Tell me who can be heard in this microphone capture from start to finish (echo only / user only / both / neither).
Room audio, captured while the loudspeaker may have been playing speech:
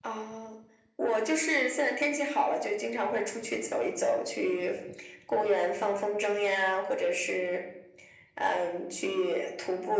echo only